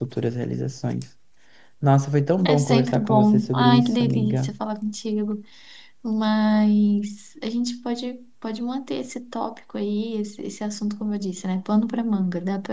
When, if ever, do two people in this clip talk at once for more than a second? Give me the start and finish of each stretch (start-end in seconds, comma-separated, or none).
2.4-4.5